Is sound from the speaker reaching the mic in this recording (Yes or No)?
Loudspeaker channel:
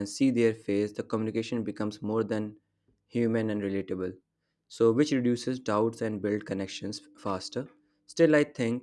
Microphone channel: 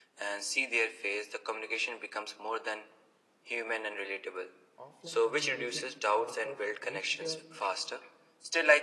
Yes